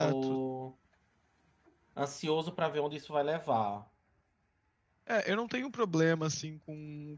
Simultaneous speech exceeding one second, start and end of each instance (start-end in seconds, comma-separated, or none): none